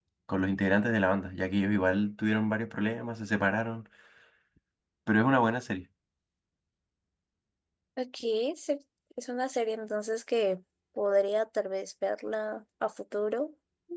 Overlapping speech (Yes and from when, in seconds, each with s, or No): No